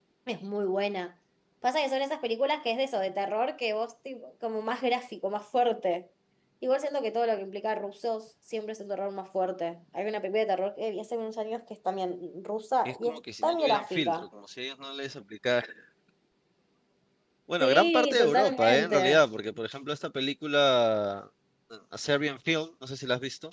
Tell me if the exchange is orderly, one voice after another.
No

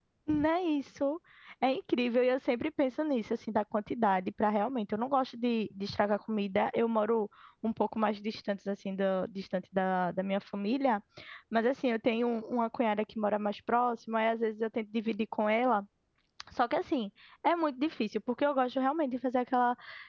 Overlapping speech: No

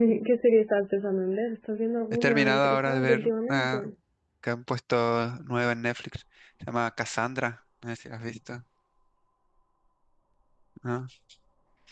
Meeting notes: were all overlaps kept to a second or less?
No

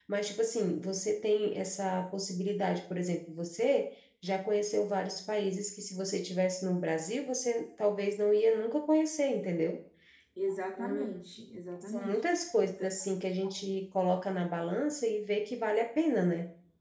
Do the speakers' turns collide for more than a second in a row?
No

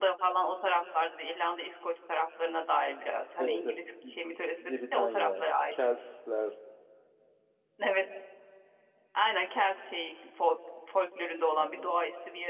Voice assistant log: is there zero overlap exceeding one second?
No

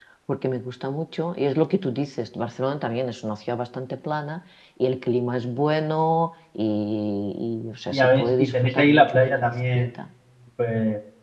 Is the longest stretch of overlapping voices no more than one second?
No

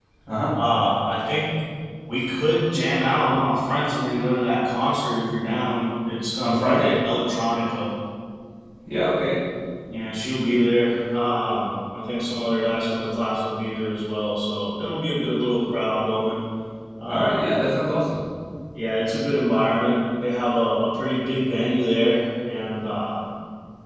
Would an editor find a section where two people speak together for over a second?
No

